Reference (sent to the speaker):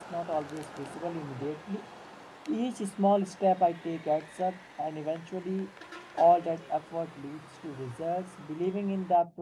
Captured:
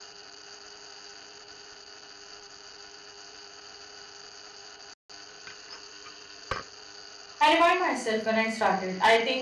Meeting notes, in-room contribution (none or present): present